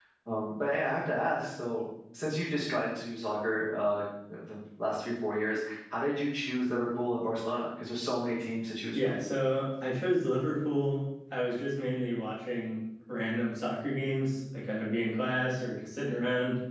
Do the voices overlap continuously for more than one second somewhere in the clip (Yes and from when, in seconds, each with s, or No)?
No